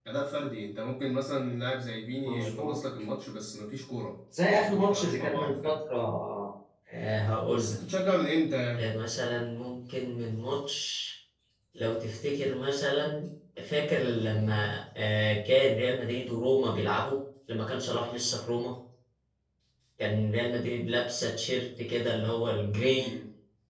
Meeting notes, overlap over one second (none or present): present